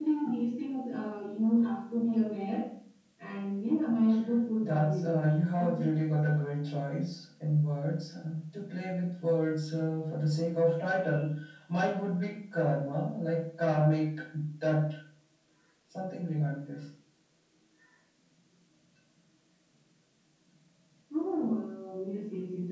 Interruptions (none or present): present